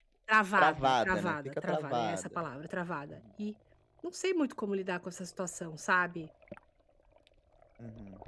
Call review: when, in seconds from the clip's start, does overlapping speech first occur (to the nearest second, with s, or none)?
1 s